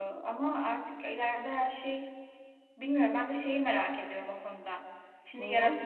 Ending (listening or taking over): listening